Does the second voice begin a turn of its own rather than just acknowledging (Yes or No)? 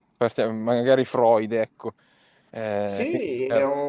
Yes